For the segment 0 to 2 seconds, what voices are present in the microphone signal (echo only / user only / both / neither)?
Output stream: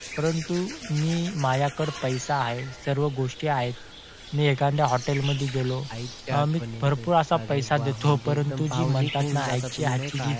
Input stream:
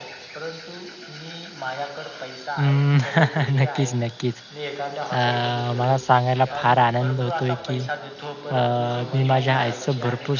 echo only